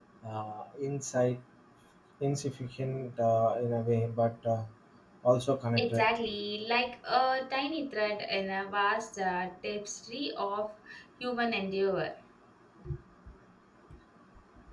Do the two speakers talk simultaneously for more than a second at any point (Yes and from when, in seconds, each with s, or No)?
No